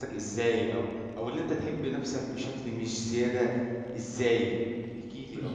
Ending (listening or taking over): taking over